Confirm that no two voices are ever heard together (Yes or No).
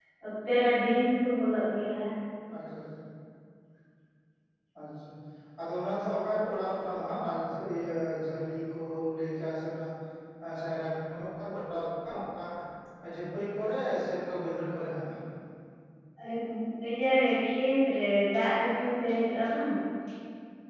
Yes